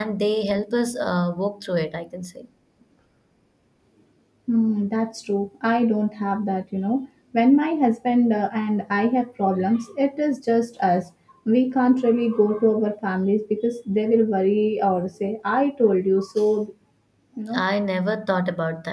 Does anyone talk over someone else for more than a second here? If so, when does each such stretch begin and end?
none

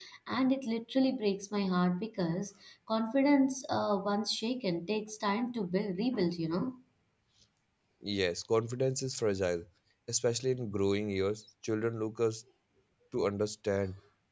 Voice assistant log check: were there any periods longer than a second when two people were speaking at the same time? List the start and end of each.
none

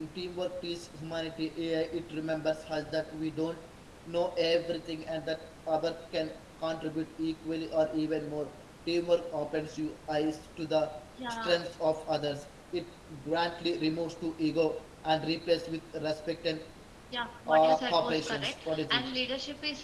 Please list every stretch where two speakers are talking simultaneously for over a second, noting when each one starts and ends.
17.5-19.0

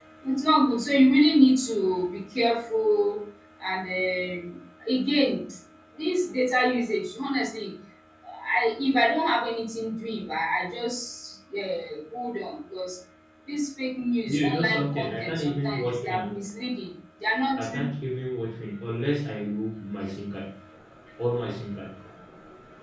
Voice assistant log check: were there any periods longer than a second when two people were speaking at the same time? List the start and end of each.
14.3-16.2

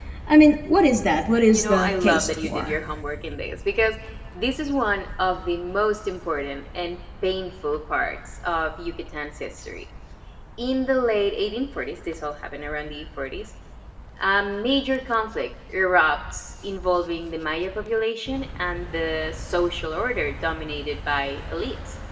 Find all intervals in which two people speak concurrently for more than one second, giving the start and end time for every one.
1.5-2.8

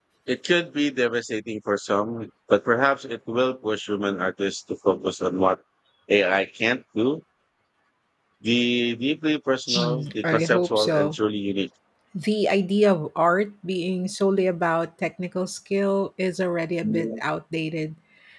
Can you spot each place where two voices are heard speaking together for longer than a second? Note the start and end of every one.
9.8-11.2

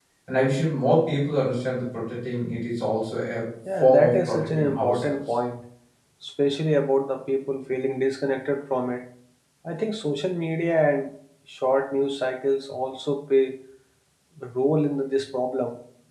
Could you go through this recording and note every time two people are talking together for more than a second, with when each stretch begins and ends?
3.8-5.2

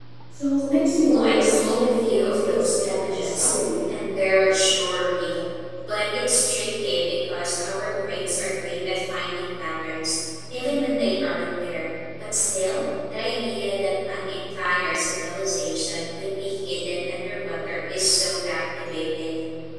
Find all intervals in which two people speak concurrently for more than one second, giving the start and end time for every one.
0.9-3.5

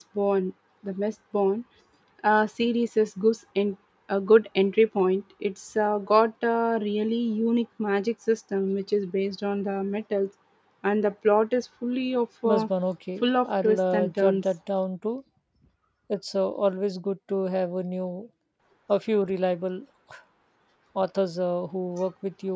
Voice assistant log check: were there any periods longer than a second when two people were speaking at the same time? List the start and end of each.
13.2-14.4

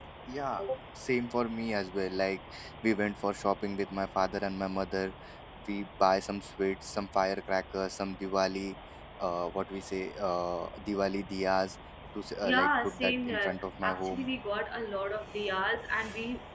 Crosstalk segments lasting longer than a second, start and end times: 12.4-14.3

